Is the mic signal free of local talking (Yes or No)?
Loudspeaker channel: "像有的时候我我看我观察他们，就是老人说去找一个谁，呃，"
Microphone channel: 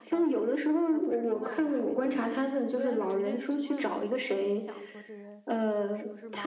No